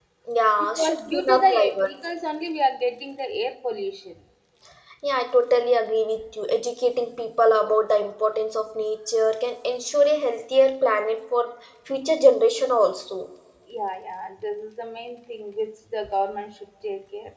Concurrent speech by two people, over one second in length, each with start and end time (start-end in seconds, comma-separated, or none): 0.6-1.9